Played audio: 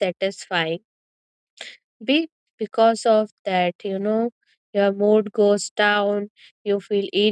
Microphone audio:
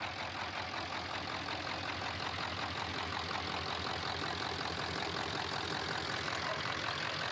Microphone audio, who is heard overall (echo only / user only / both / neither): neither